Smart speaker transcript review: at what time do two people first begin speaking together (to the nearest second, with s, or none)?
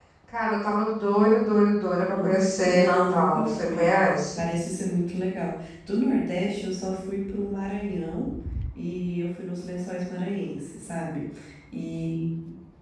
2 s